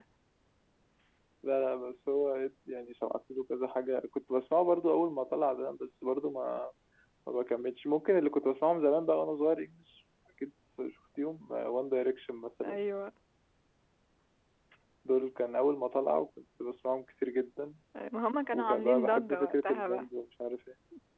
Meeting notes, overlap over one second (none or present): present